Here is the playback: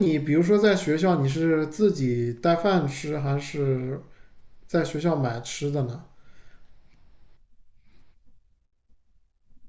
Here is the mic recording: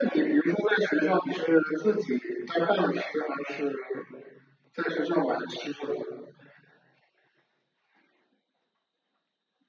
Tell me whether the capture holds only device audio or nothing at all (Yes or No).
Yes